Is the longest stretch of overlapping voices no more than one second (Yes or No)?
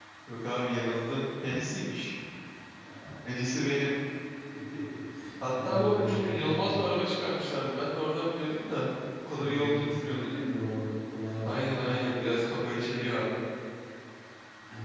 No